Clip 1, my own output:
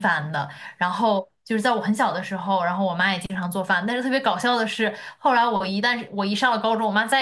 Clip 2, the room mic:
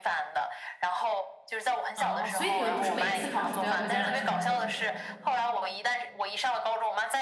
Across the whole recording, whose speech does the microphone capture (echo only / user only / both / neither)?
both